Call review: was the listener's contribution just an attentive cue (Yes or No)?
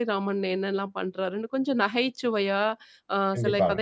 Yes